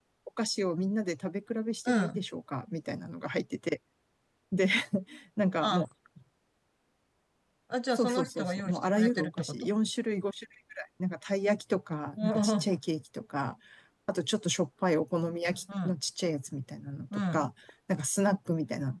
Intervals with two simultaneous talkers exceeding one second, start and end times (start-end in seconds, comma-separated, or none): 7.9-9.7